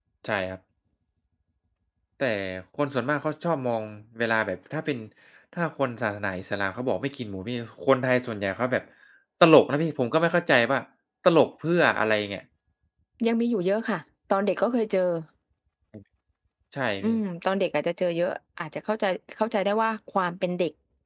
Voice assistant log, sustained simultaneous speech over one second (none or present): none